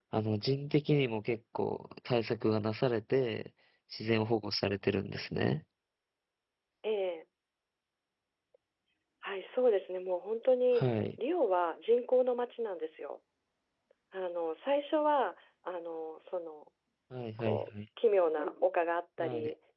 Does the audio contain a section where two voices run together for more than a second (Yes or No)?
No